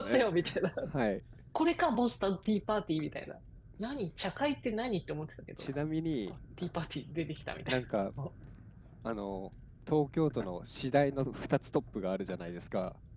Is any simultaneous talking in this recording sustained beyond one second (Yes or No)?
No